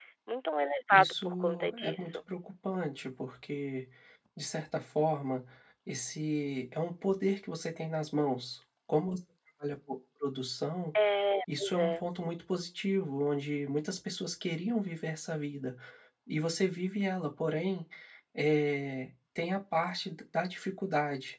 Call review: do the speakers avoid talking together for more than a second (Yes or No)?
No